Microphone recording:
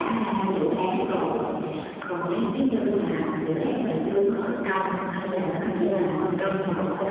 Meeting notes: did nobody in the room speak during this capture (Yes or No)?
No